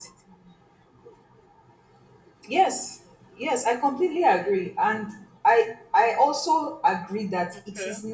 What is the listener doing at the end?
listening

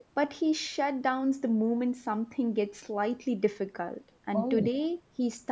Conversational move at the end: listening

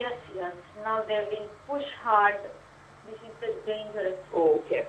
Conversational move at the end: taking over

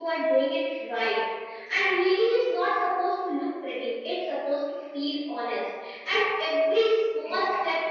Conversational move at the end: listening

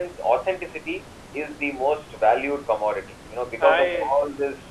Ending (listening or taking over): listening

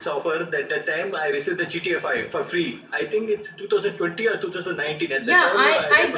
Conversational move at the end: taking over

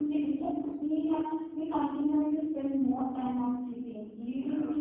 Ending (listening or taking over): listening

